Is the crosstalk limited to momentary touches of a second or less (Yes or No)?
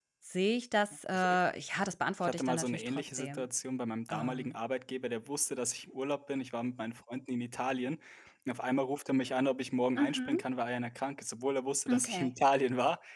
No